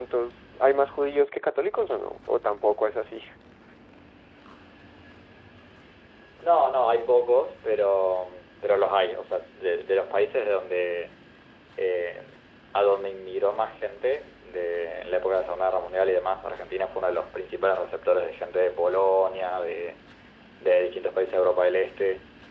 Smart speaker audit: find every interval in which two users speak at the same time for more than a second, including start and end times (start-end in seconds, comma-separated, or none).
none